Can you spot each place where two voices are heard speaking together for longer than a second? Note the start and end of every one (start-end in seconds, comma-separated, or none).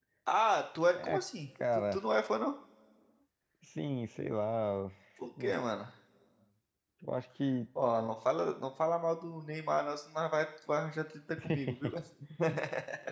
none